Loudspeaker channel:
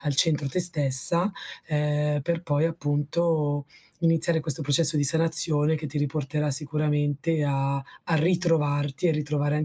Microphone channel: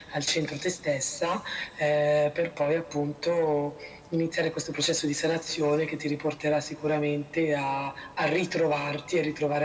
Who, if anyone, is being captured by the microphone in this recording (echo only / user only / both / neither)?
echo only